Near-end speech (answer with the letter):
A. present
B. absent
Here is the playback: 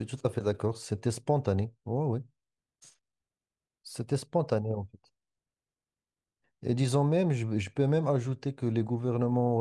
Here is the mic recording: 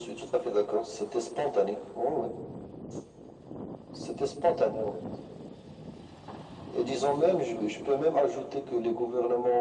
B